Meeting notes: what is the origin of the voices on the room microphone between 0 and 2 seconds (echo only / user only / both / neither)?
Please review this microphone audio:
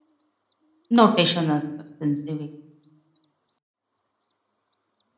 user only